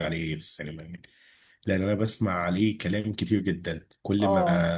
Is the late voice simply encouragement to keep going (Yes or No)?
Yes